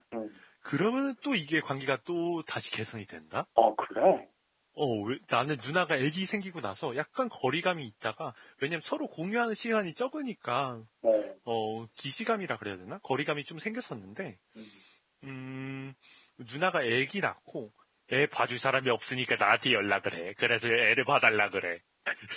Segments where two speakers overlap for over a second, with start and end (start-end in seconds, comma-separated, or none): none